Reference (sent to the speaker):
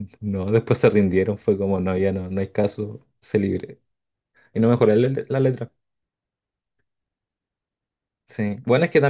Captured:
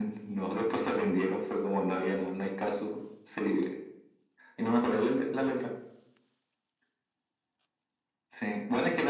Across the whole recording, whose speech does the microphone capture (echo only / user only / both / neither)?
echo only